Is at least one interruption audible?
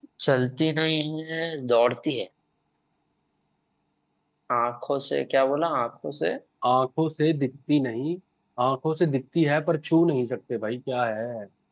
No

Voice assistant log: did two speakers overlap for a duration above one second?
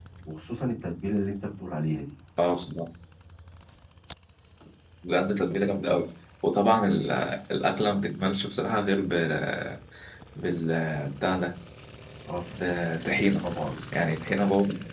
No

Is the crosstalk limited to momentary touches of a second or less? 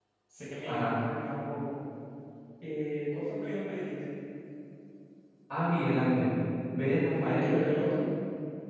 Yes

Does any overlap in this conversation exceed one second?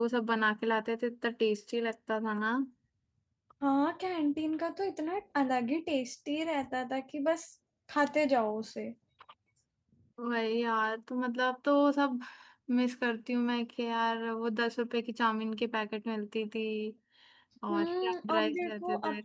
Yes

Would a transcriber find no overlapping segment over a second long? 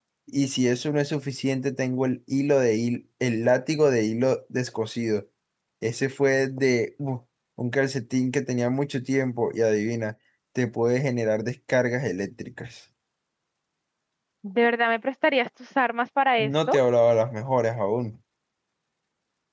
Yes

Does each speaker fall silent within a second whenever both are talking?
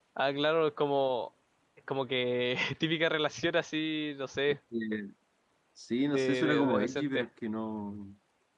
No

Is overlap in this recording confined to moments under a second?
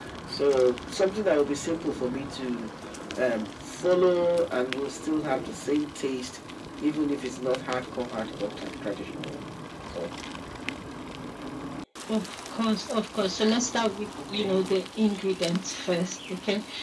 Yes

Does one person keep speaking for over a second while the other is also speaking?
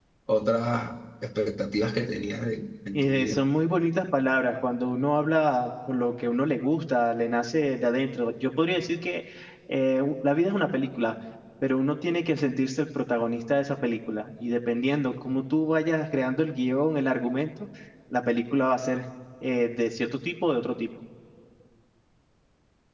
No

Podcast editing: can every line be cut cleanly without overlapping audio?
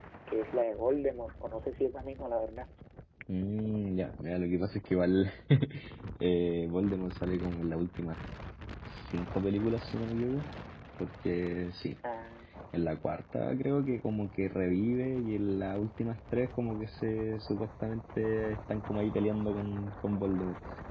Yes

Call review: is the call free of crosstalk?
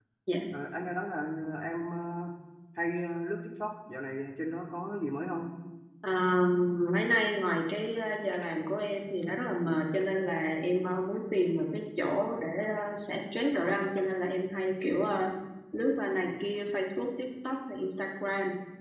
Yes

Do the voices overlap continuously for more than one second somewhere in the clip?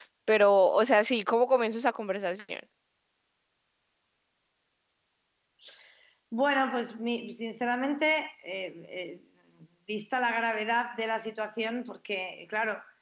No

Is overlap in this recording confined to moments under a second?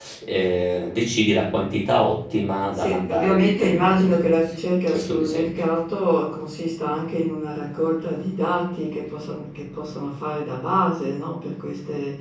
No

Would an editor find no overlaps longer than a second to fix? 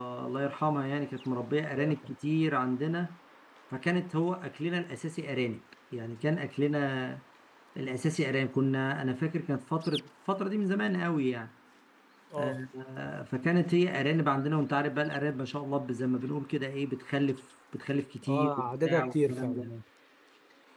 No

